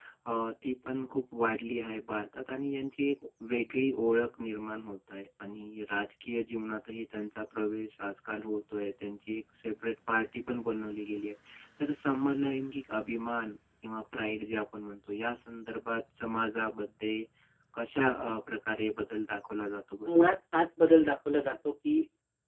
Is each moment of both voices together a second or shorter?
Yes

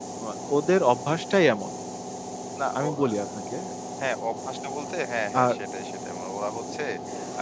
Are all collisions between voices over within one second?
Yes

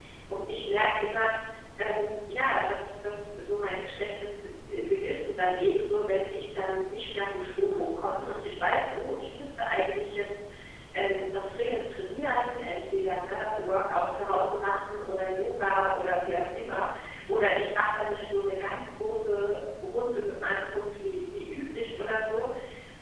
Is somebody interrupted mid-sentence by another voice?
No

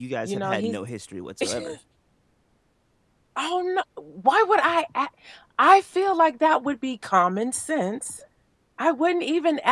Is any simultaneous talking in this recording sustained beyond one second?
No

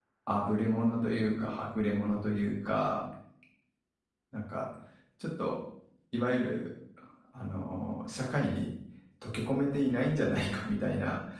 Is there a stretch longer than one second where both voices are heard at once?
No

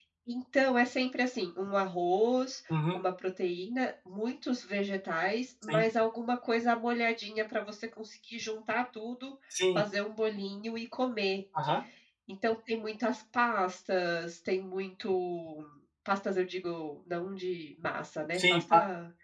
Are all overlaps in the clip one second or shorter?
Yes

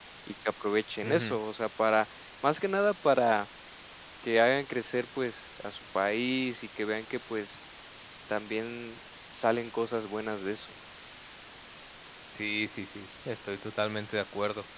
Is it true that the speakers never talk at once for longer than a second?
Yes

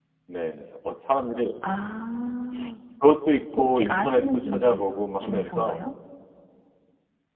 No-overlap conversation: No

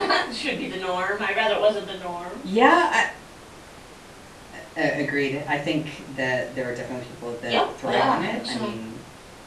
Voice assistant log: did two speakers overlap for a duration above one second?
Yes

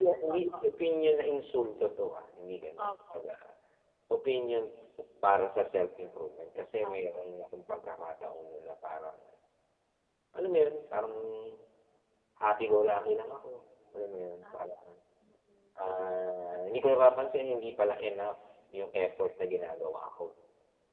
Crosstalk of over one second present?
No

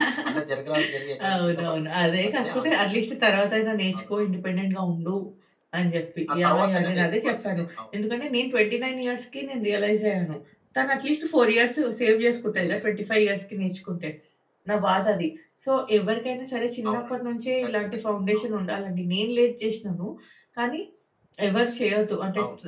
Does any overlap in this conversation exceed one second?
Yes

